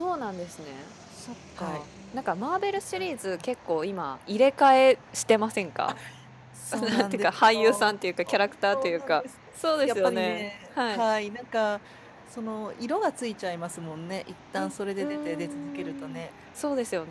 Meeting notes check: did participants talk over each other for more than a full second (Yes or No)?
Yes